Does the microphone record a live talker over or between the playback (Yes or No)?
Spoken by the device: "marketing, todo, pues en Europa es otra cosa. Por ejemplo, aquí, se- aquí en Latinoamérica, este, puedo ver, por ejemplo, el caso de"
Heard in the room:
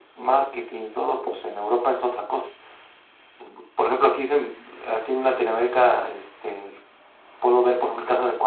No